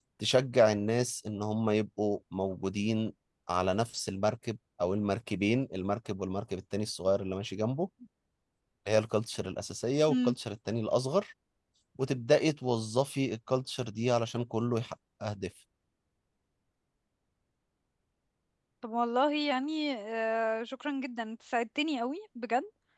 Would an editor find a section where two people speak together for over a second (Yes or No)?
No